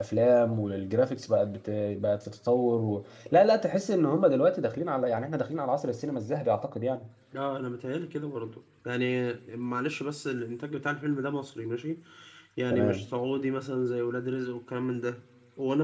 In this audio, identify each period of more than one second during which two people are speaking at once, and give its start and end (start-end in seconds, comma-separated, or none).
none